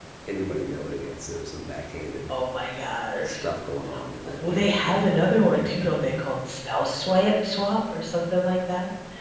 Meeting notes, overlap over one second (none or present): present